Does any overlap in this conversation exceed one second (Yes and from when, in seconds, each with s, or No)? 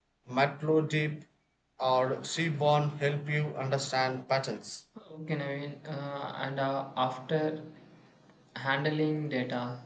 No